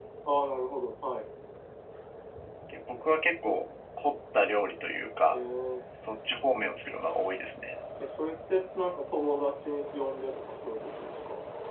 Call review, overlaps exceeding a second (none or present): none